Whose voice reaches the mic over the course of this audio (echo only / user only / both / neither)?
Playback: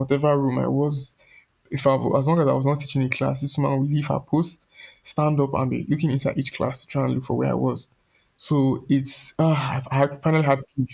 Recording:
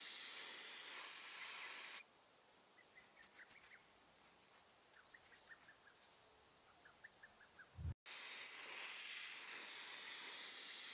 neither